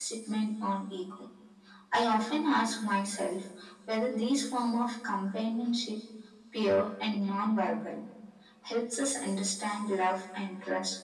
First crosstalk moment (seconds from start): none

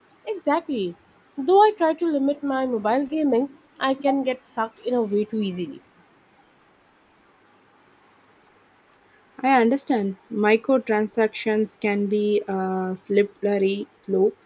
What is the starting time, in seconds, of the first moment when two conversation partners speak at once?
none

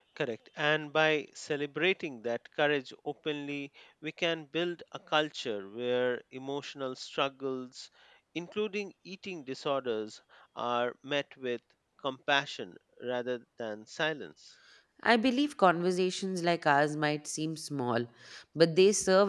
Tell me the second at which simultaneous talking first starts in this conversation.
none

